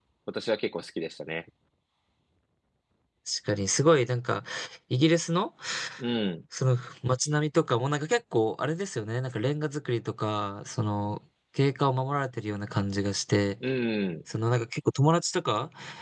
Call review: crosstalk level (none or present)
none